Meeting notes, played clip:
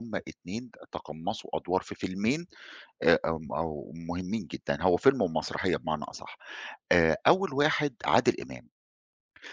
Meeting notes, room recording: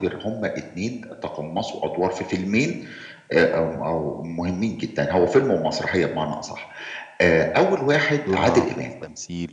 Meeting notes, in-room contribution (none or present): present